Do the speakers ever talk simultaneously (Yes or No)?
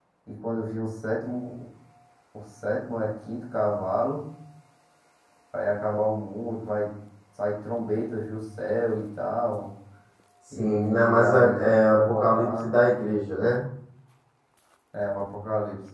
Yes